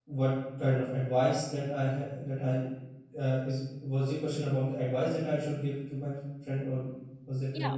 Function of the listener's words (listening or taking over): taking over